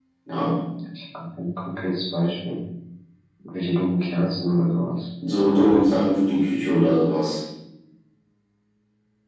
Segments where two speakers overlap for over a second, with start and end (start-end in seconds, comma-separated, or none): none